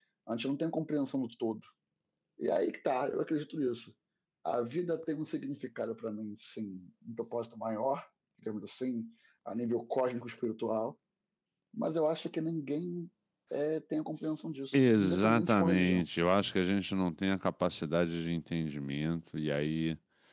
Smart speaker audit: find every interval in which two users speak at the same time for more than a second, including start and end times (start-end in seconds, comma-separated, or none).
14.7-16.1